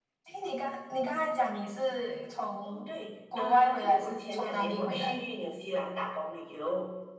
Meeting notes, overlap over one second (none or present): present